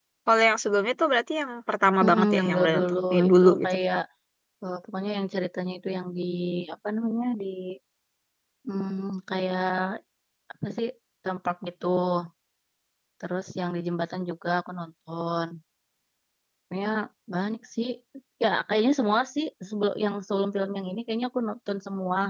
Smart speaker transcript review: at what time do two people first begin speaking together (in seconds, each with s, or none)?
2.0 s